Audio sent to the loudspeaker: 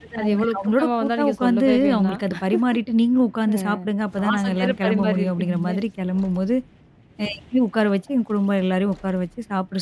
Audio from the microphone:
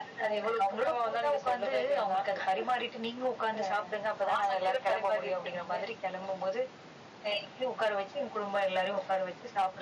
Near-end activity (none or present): none